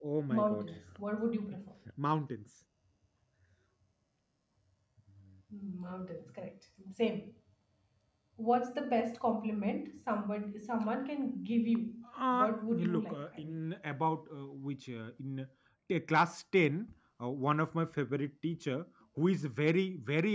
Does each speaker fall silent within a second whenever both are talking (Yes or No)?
No